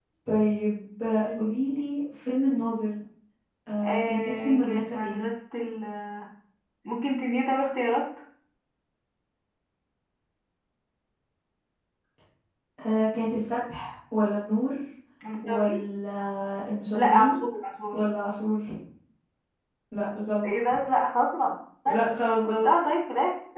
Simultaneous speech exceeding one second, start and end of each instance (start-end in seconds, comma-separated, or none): 3.8-5.2